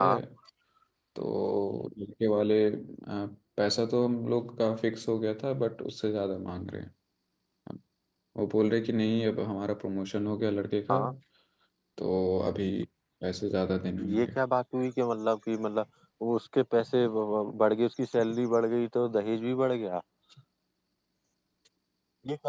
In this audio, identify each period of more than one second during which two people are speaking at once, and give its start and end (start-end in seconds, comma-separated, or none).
none